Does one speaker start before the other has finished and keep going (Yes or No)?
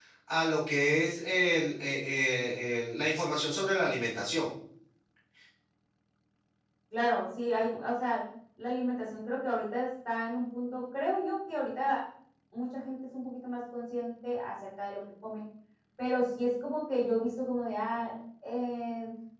No